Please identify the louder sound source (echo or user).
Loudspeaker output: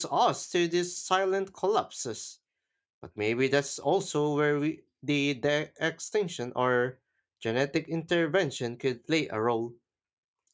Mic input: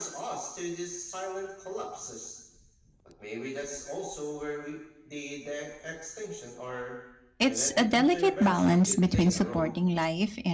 user